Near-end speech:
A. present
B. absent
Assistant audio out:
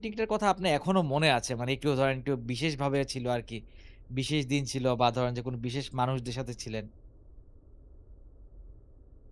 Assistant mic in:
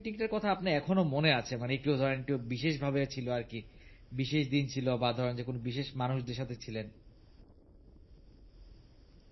B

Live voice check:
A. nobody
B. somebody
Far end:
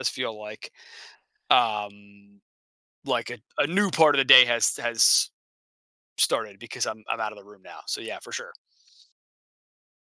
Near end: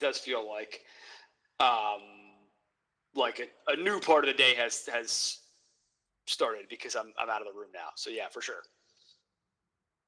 A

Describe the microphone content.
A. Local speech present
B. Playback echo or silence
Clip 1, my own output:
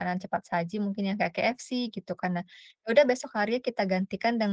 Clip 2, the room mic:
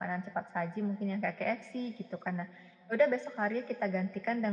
B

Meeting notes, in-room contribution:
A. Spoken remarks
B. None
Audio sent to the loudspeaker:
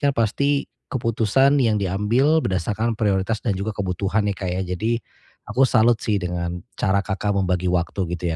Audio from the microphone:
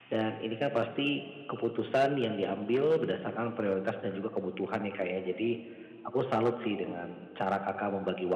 B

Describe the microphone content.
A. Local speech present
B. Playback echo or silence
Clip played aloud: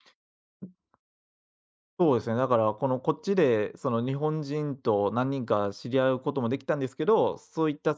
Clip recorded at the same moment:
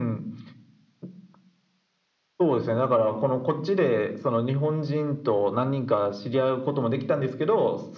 B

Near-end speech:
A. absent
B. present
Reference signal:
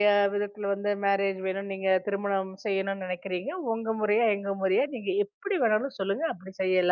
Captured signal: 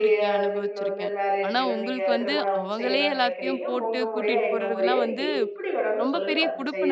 B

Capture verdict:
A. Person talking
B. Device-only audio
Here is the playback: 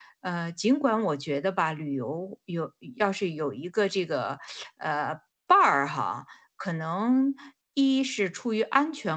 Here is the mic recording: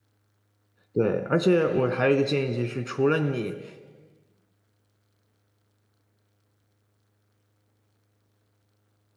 A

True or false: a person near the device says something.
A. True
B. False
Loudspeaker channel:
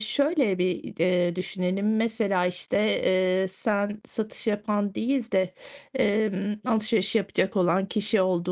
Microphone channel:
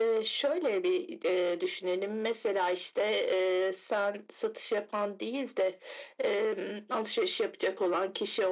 B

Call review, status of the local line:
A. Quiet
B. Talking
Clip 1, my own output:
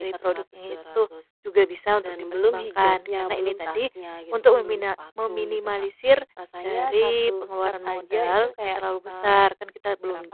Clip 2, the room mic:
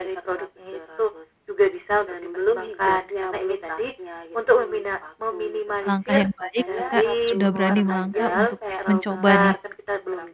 B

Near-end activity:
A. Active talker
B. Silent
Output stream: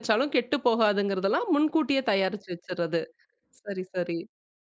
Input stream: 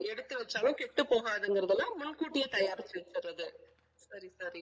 B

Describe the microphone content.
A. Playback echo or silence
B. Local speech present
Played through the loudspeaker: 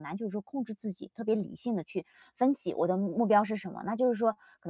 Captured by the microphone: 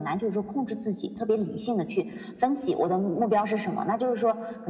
A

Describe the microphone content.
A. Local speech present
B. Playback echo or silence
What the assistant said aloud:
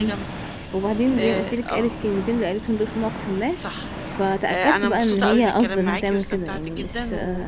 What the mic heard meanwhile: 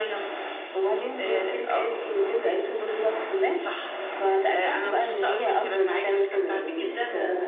B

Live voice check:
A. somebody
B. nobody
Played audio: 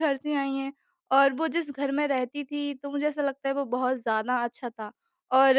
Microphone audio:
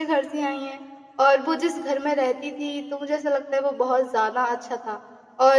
B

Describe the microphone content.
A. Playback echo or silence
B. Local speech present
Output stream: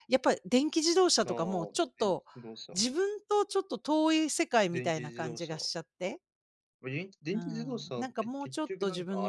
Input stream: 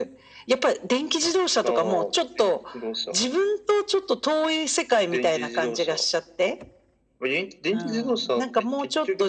A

